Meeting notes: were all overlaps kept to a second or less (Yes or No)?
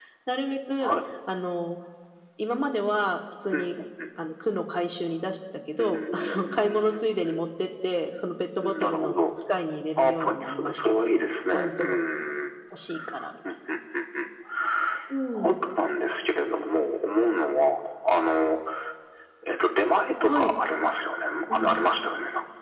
No